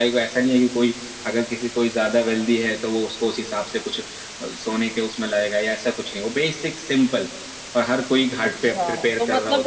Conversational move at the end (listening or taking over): taking over